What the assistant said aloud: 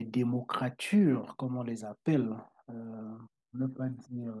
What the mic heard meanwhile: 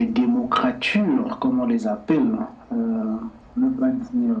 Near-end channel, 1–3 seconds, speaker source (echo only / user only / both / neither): echo only